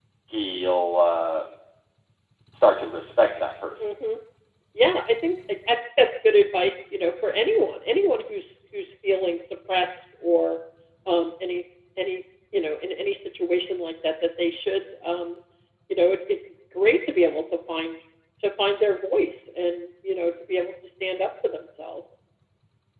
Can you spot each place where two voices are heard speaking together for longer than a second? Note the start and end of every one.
none

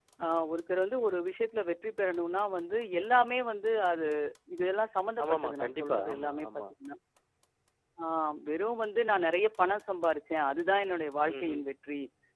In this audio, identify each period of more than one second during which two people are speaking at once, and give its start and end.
5.2-6.5

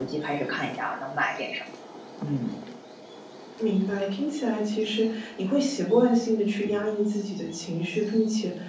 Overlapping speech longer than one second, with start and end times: none

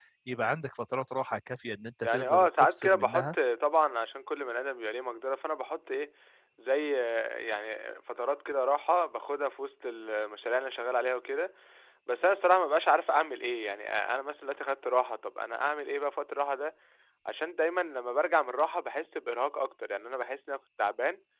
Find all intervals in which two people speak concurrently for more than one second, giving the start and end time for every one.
2.0-3.4

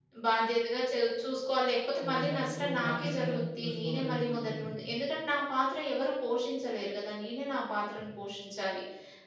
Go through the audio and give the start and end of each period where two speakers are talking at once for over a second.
2.0-4.6

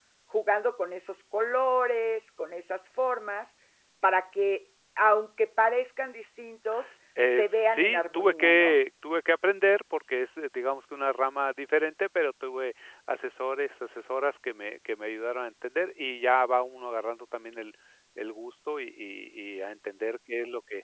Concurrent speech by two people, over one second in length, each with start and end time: 7.2-8.8

